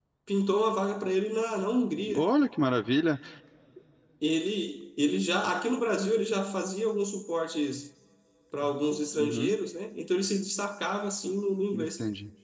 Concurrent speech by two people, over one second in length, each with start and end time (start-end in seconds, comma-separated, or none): none